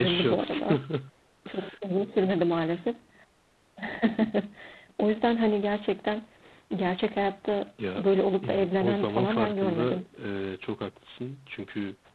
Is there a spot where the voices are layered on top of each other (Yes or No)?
Yes